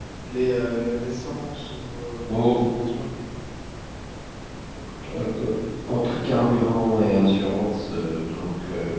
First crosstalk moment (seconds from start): none

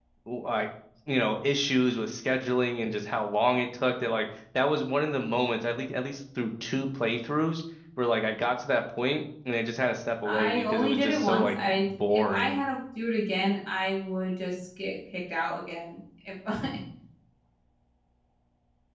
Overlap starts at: 10.2 s

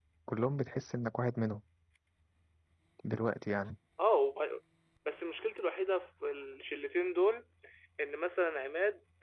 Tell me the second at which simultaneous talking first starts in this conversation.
none

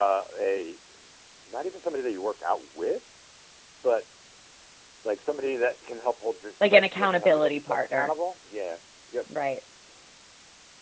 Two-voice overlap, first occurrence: 6.6 s

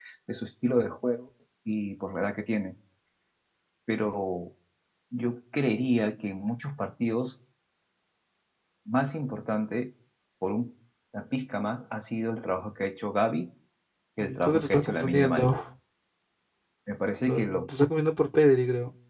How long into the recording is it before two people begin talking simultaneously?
14.2 s

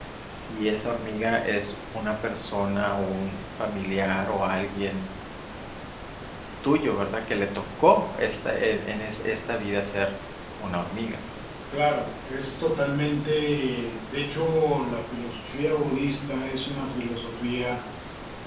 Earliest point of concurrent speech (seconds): none

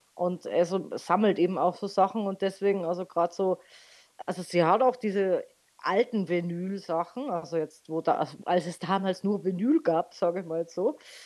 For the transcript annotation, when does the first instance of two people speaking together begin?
none

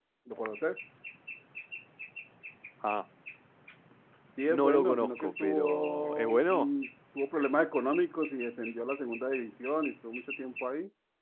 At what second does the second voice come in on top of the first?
4.5 s

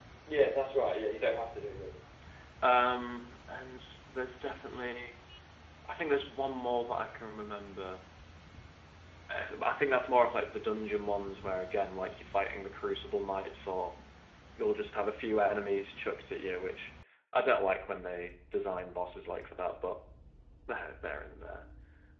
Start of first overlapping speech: none

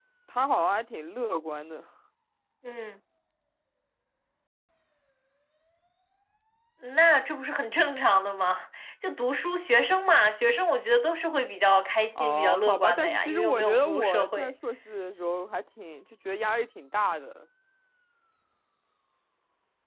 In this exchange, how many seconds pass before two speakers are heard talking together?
12.2 s

